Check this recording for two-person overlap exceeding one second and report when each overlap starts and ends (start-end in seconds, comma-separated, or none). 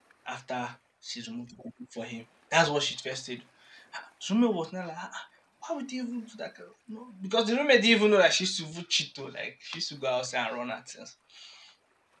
none